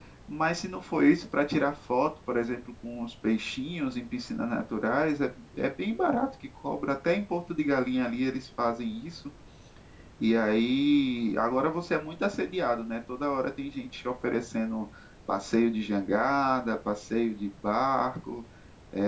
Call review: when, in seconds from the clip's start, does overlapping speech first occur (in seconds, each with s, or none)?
none